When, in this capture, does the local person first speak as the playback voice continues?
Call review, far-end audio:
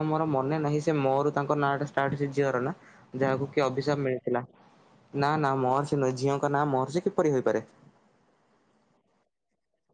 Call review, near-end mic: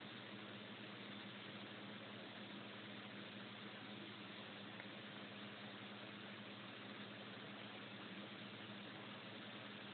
none

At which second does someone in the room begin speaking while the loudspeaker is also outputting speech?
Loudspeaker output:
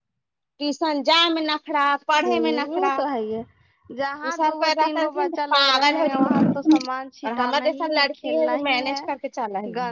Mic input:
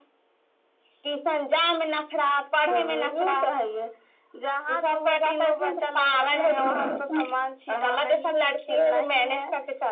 none

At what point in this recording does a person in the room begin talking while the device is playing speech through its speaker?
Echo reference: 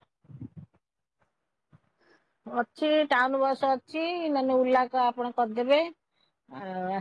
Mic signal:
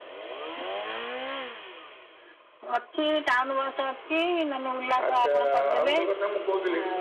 5.1 s

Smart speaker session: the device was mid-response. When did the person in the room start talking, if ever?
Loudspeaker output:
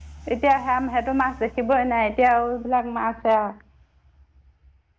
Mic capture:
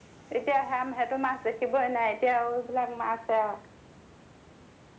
none

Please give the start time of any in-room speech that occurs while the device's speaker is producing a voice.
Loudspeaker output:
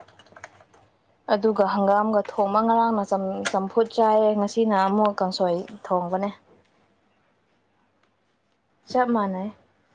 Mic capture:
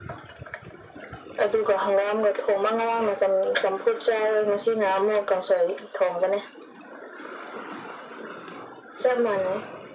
none

